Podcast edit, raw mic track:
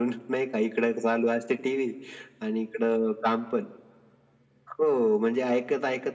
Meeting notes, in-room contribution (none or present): none